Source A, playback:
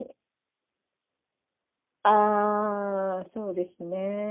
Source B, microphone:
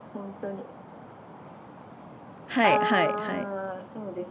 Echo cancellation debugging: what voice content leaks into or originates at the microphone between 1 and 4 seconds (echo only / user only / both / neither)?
both